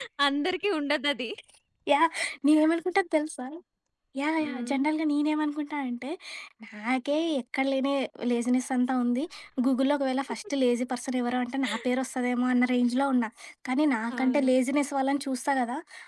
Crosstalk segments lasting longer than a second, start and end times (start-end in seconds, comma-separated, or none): none